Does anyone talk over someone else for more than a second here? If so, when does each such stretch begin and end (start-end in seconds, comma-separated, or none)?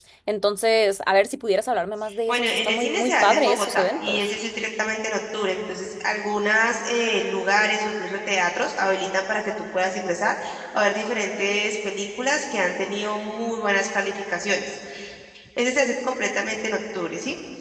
2.3-4.3